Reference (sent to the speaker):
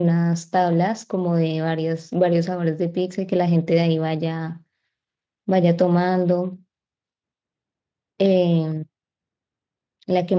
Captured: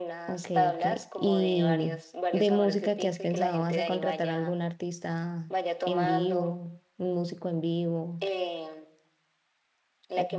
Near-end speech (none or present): present